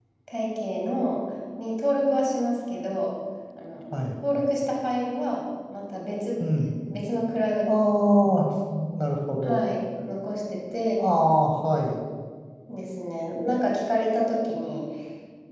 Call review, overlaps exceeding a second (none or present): none